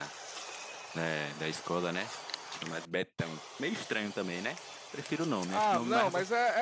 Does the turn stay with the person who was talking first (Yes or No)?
No